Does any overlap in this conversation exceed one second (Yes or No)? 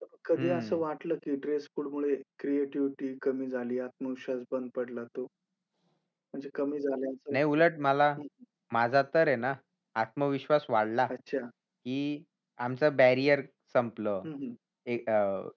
No